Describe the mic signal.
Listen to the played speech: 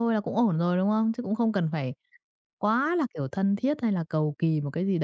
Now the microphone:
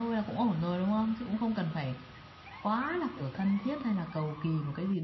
echo only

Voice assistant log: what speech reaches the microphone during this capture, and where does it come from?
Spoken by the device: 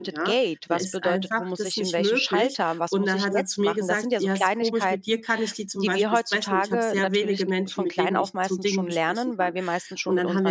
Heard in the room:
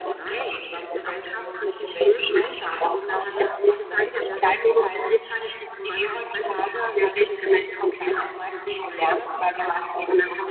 echo only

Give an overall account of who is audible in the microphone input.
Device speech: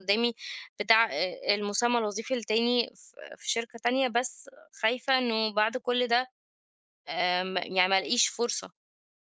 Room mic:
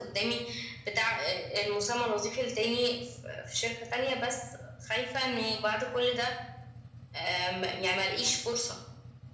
echo only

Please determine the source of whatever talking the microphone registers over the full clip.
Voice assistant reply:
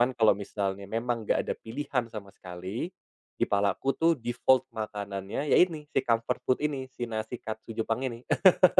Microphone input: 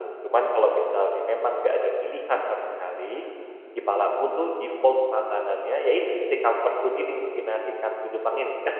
echo only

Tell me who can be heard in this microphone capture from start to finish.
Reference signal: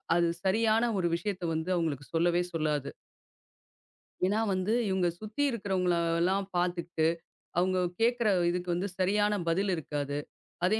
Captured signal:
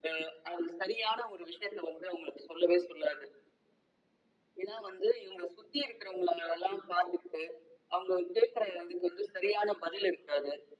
echo only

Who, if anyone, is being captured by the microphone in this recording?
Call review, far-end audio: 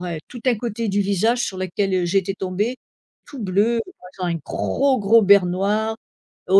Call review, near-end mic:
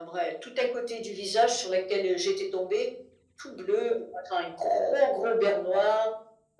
echo only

